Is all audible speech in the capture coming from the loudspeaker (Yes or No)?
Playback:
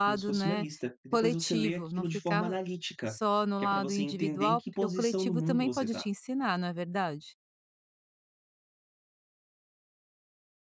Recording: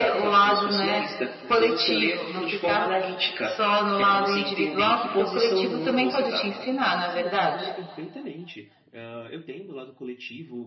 No